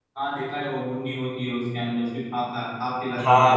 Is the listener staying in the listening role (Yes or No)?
No